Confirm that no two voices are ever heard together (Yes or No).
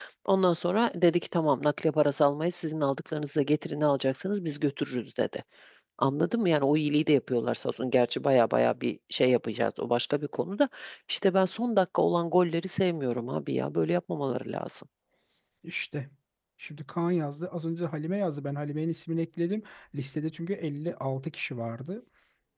Yes